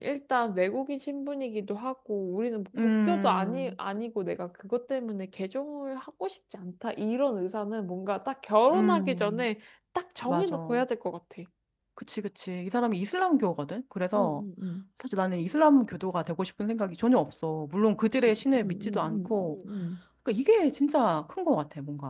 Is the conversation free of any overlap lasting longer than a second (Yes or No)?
No